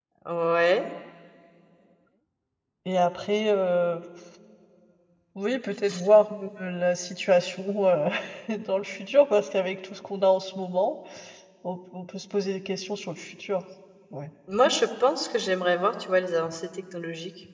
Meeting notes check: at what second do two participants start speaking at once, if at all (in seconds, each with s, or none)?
none